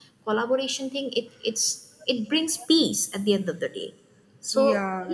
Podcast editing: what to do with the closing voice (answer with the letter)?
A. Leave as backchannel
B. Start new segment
A